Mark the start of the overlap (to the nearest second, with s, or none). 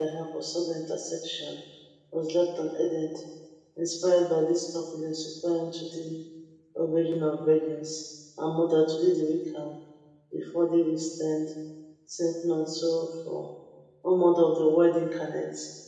none